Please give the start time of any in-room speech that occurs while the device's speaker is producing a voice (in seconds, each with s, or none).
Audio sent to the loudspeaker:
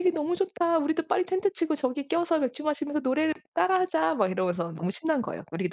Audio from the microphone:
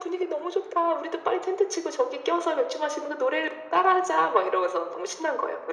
none